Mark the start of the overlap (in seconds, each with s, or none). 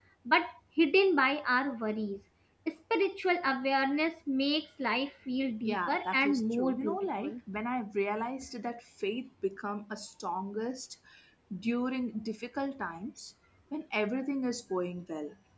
5.6 s